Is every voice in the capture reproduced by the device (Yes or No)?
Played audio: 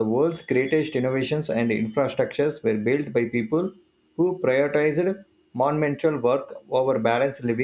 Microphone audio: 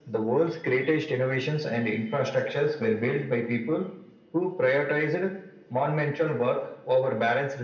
Yes